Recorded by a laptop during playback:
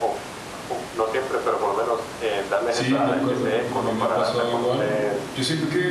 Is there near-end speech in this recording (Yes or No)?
Yes